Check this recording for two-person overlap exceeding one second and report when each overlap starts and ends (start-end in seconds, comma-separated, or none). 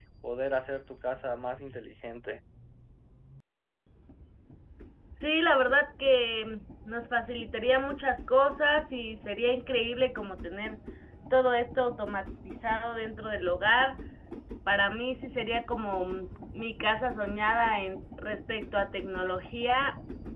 none